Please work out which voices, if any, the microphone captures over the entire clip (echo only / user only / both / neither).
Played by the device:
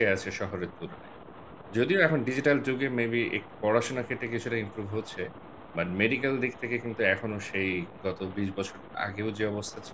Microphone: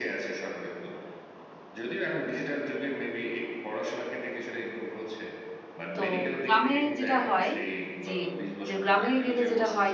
both